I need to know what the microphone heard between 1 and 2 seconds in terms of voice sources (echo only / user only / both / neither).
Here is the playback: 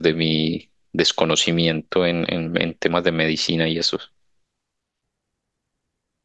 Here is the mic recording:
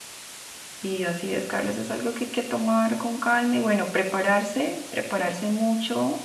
user only